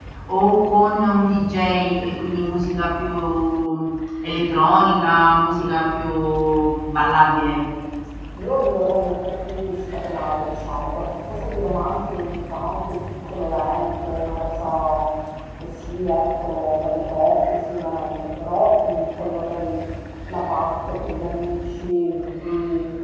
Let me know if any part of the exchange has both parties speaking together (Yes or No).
No